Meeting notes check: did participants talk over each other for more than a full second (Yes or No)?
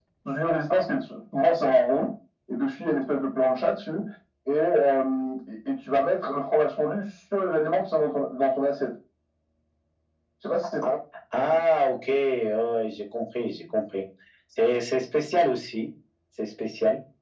No